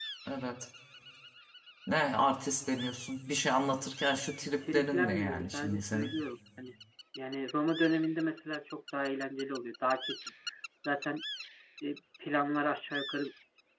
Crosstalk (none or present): present